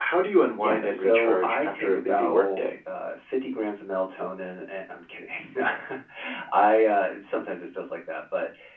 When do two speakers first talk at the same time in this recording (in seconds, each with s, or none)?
0.6 s